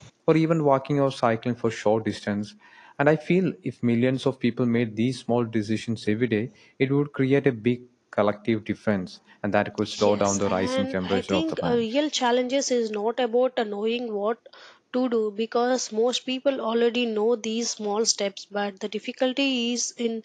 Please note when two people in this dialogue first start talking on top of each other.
9.9 s

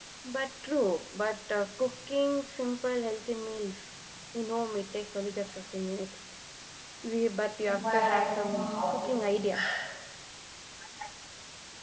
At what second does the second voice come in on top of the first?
7.7 s

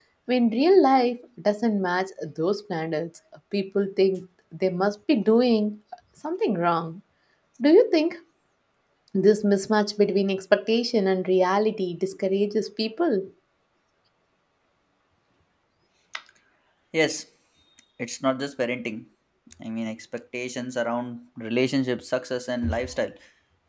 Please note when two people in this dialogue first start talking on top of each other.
none

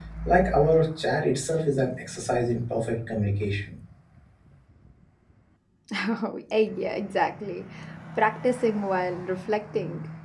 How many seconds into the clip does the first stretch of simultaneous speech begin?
none

